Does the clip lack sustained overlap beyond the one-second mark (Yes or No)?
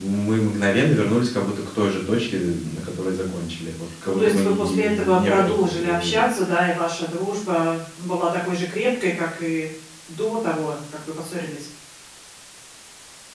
No